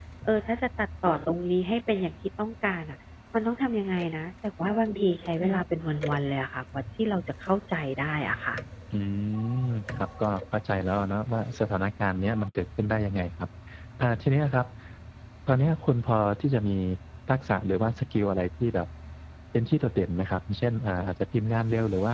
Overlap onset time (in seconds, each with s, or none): none